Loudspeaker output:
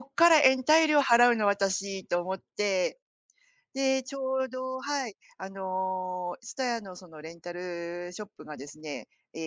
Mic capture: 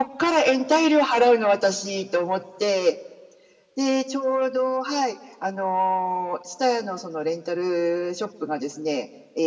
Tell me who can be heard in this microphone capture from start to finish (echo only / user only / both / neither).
echo only